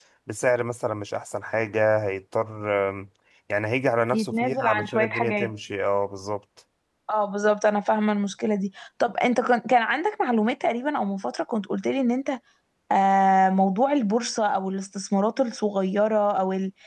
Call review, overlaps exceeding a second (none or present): present